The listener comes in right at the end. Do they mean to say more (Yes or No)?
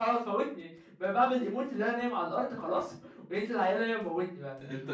Yes